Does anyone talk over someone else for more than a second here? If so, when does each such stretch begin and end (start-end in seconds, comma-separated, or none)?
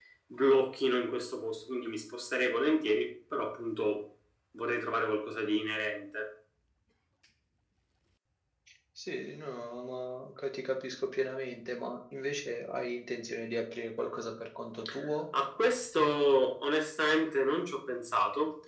none